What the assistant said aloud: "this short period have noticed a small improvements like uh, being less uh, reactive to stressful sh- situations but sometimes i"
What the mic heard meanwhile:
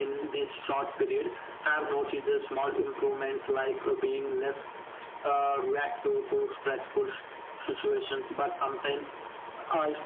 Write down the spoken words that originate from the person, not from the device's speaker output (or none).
none